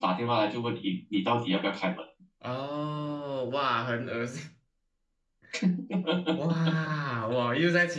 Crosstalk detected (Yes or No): No